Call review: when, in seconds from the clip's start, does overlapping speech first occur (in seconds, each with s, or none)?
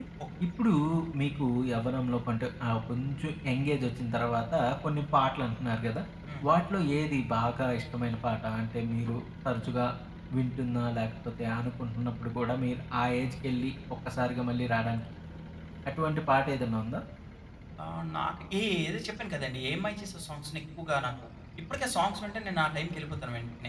none